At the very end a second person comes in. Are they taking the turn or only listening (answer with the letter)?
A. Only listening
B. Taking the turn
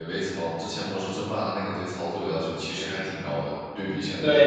B